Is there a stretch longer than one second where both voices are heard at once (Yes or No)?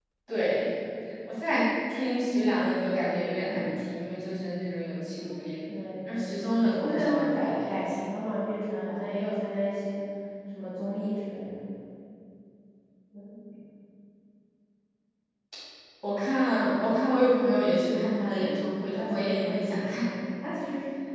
Yes